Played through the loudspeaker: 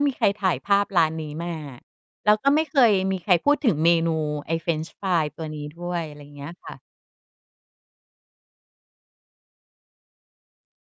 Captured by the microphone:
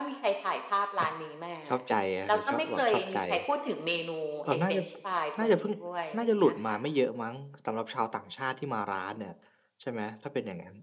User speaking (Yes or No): Yes